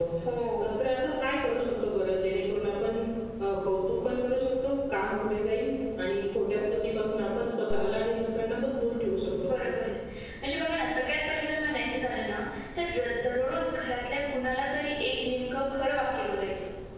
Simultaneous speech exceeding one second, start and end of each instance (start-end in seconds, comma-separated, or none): none